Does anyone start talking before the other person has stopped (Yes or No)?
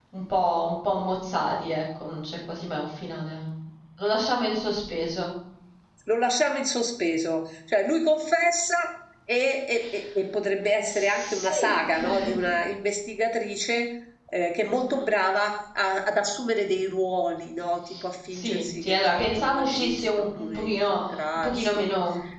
Yes